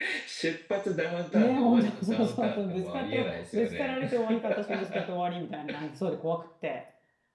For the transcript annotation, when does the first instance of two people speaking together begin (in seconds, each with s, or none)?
1.3 s